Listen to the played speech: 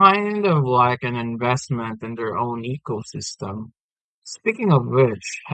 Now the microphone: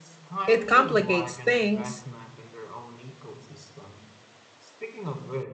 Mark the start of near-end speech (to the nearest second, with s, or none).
0 s